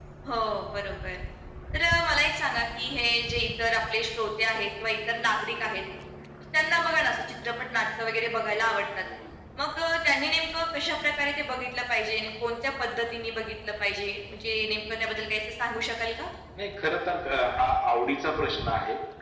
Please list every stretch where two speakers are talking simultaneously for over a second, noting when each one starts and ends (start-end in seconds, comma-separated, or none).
none